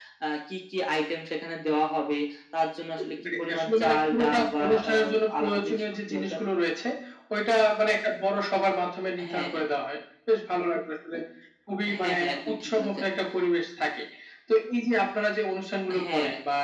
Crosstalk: present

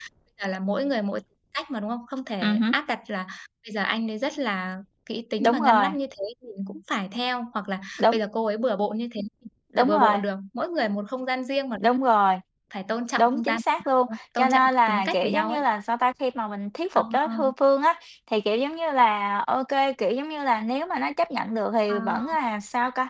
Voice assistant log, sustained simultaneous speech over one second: present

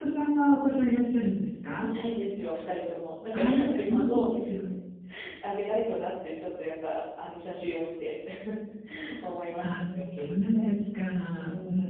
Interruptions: present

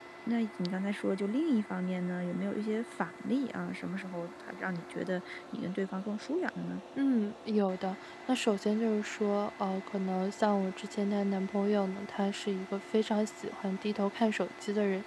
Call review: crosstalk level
none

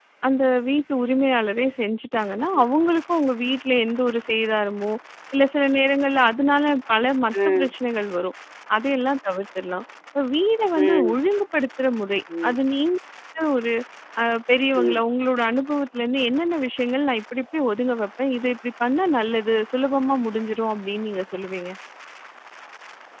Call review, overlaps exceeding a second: none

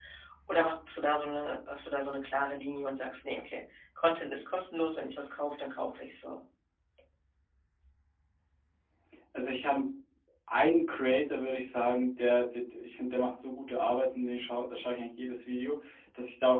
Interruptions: none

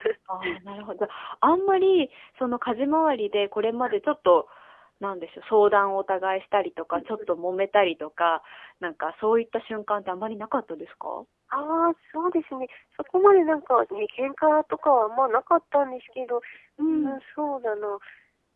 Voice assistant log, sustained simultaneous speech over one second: none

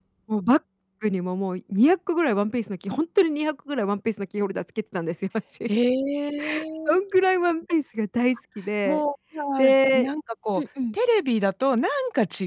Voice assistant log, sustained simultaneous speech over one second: none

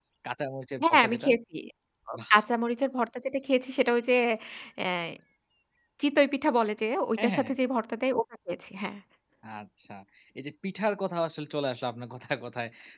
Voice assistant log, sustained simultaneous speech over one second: none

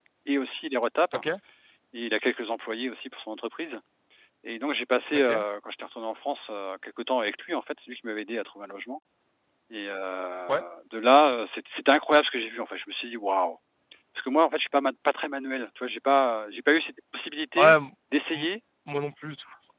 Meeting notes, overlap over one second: none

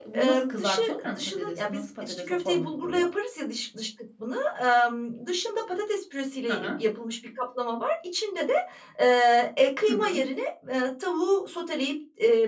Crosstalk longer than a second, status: present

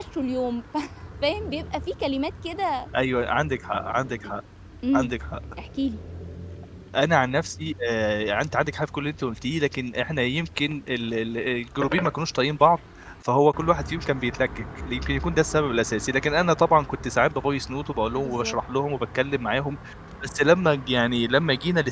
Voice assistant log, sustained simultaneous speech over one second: none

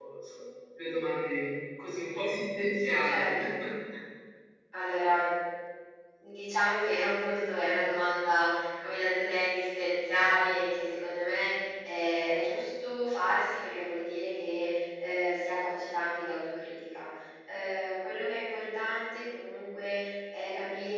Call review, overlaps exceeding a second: none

